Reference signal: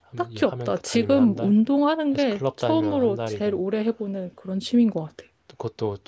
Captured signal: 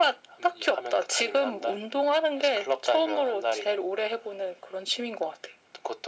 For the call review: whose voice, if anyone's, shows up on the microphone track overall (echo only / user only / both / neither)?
echo only